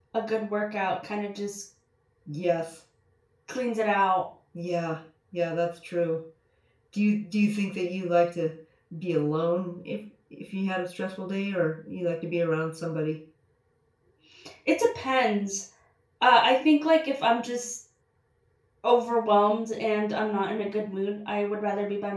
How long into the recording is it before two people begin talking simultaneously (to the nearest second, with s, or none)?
none